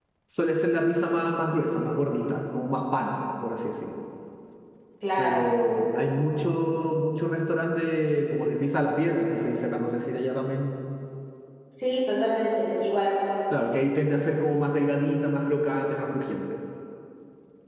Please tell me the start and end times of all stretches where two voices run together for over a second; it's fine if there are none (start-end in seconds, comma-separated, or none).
none